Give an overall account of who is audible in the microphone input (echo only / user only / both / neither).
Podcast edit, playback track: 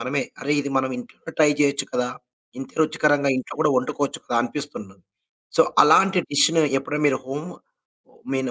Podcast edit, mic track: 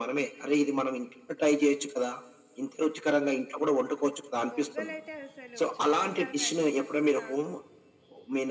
both